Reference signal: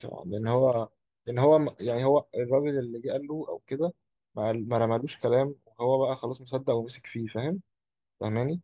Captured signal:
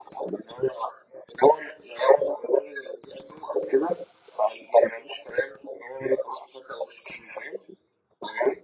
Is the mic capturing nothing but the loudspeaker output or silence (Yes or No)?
Yes